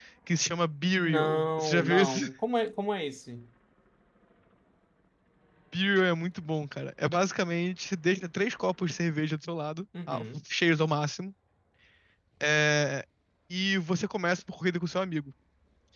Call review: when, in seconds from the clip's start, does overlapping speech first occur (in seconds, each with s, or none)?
1.0 s